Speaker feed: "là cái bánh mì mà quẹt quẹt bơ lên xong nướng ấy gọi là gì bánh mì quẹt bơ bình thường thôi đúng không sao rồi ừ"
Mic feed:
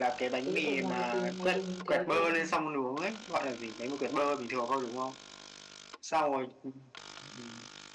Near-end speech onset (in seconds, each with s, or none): 0.4 s